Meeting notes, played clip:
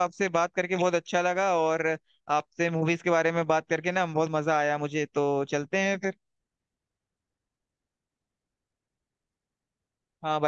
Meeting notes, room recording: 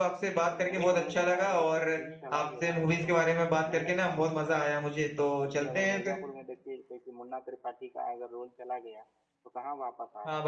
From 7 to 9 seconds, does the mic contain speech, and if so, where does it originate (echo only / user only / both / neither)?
user only